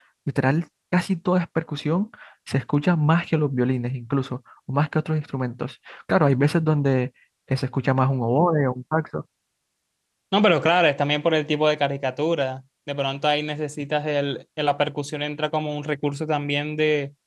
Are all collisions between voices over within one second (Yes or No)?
Yes